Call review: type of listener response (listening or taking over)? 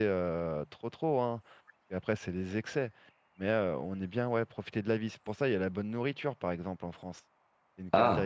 taking over